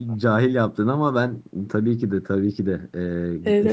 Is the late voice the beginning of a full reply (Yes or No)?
Yes